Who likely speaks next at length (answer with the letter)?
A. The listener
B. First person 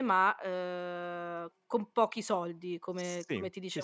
A